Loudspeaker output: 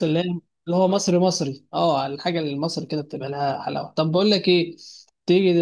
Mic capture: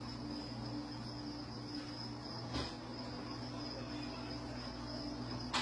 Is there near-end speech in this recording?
No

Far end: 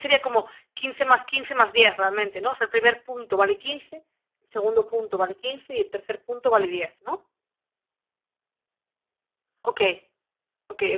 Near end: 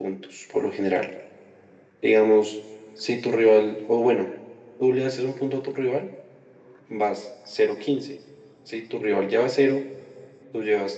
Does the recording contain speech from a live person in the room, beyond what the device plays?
Yes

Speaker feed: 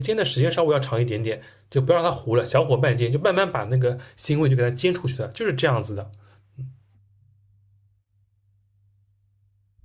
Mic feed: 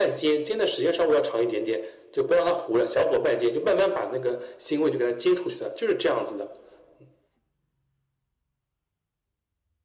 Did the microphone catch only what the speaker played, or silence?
Yes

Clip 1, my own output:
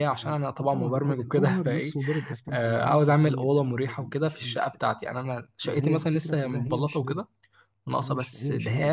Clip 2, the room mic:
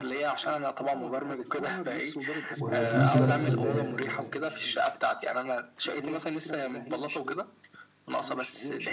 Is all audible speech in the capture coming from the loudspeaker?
No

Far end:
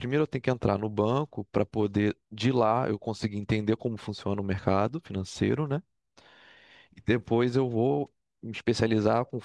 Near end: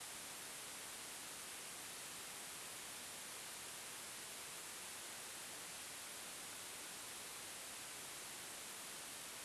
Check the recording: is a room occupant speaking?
No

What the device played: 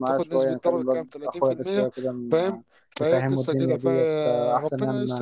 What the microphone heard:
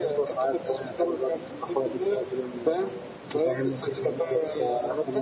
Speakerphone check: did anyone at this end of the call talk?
No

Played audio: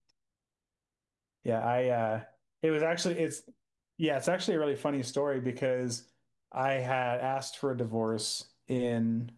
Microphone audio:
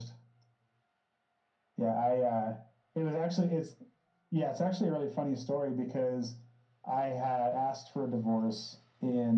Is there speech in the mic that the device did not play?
No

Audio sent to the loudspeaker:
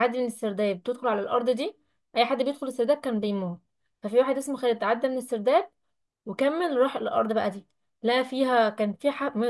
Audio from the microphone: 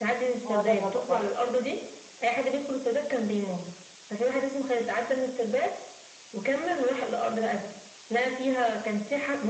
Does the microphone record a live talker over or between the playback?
Yes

